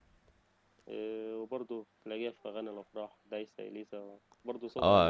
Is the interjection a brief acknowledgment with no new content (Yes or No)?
No